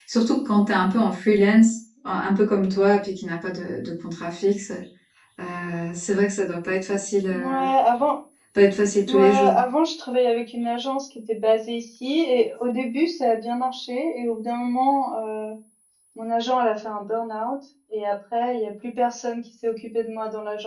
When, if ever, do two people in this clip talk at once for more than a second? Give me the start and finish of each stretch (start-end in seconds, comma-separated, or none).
none